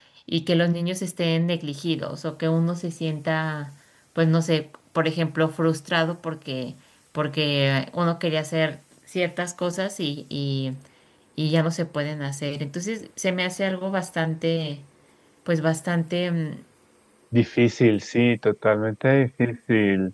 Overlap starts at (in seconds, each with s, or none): none